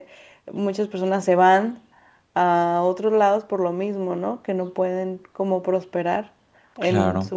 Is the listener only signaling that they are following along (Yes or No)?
No